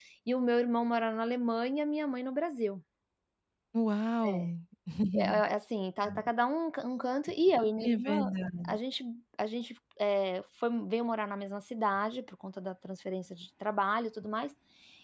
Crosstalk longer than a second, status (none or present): none